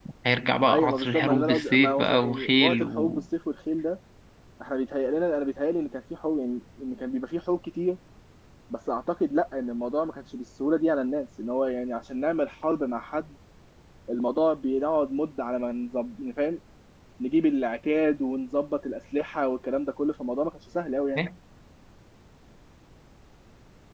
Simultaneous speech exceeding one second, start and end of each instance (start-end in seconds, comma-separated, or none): 0.7-3.2